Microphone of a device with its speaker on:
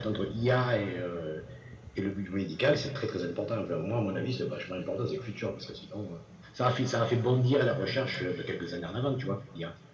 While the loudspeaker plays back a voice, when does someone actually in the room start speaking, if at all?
none

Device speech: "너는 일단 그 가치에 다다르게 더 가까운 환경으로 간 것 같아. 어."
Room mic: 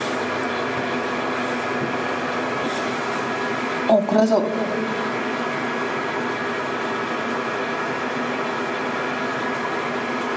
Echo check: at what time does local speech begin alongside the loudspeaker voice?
4 s

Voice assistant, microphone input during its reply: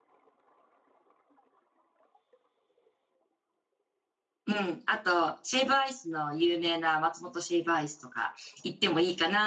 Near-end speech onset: 5 s

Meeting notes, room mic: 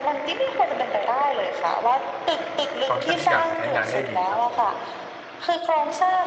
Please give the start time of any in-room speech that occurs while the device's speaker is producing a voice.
3 s

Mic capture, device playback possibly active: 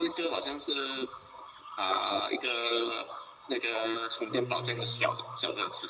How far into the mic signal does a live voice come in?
4 s

